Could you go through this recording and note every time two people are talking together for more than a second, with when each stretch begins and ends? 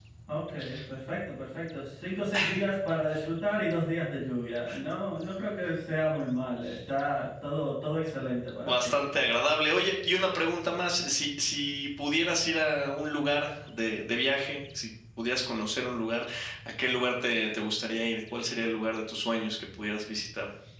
none

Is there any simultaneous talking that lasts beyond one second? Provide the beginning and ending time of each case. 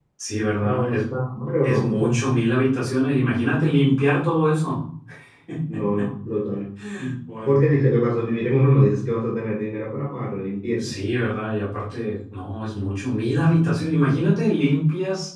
none

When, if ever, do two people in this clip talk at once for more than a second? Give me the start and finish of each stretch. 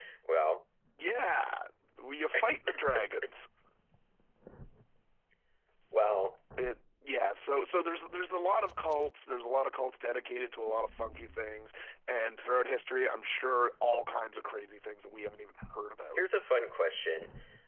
none

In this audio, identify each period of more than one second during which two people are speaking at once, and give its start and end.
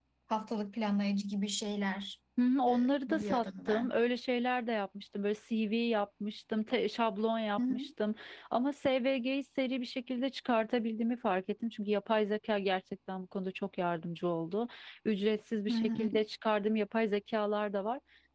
2.7-3.9

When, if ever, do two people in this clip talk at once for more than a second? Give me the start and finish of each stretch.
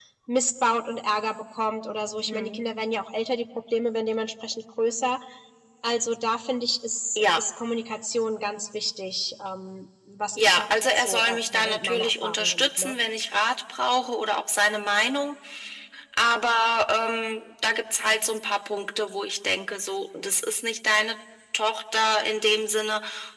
10.4-12.9

